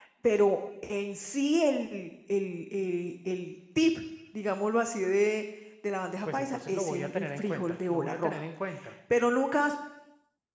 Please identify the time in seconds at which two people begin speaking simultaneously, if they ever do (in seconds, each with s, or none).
6.3 s